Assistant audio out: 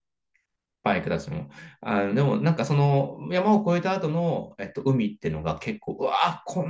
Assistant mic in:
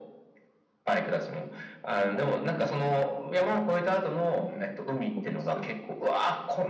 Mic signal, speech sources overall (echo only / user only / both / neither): both